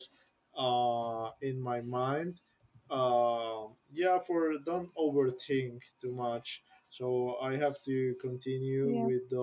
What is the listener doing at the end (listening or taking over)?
listening